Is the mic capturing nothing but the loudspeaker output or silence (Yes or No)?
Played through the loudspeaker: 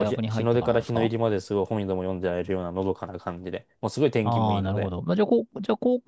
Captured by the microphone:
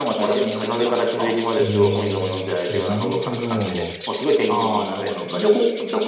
No